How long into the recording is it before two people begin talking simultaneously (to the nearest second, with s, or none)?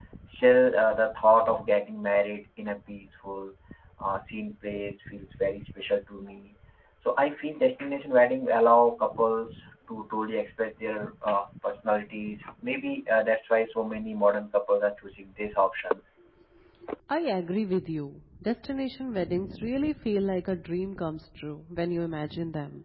none